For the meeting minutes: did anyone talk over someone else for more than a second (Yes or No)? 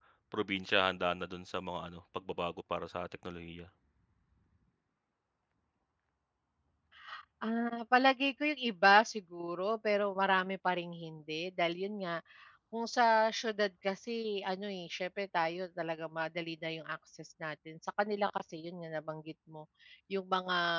No